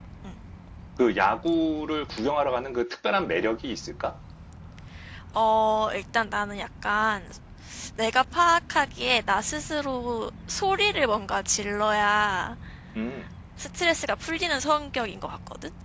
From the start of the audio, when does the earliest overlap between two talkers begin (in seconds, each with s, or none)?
none